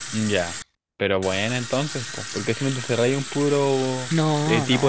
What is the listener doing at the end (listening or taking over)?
listening